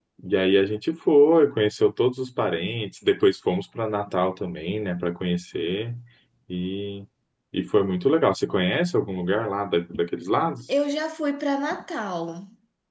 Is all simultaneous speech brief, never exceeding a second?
Yes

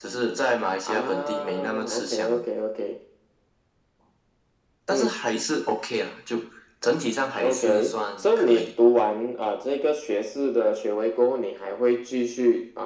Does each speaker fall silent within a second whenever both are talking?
No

